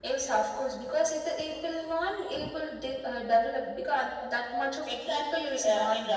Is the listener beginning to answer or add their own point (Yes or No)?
Yes